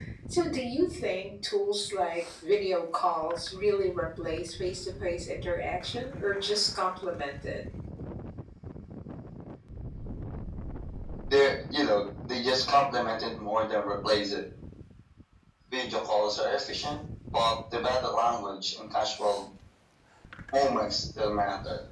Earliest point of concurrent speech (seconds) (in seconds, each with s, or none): none